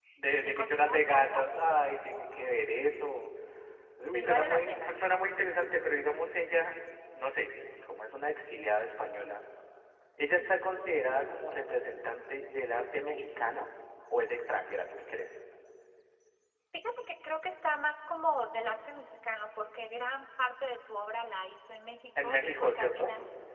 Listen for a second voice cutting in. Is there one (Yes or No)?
Yes